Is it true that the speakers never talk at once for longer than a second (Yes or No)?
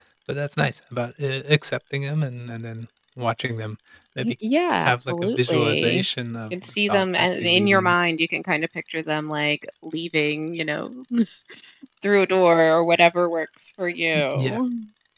No